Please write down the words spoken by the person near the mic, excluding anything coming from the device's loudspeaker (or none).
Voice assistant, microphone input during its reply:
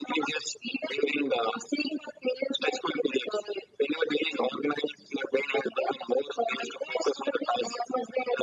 none